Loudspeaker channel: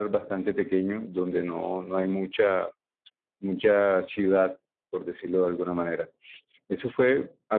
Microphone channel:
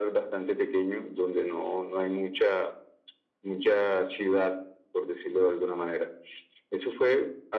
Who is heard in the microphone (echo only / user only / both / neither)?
echo only